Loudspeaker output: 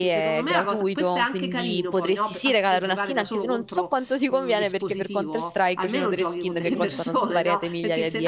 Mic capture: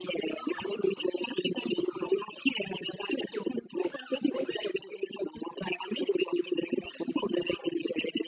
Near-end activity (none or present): none